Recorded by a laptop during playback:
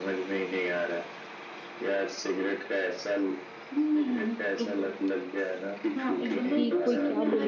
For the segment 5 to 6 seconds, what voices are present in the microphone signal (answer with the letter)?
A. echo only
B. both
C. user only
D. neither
A